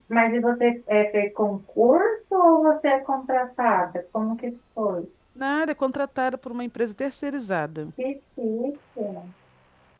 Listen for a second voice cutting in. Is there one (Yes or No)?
No